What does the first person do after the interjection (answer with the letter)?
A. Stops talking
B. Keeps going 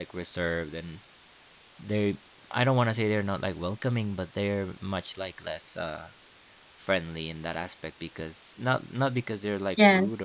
B